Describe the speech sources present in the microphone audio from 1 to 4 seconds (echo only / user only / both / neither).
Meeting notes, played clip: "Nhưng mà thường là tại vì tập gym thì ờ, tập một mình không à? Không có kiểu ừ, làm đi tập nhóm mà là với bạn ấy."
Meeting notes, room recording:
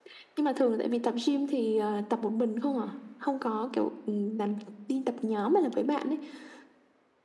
echo only